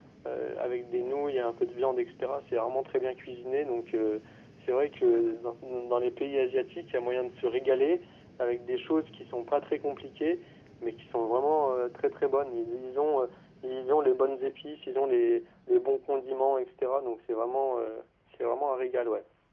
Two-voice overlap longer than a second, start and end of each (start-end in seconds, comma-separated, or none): none